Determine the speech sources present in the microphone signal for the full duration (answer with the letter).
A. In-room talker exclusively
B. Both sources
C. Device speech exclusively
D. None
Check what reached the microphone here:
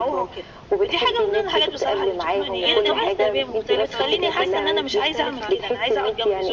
B